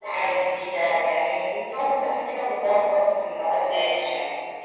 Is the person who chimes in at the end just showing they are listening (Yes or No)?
No